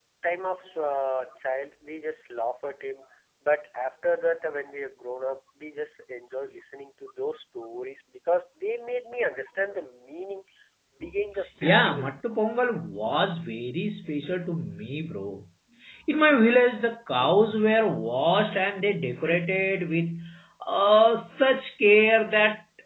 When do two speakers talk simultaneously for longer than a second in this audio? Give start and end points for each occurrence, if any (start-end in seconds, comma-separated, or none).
none